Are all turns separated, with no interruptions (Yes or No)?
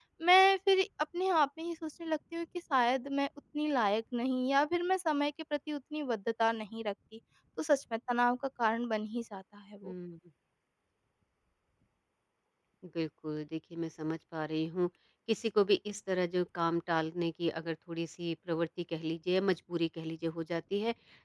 Yes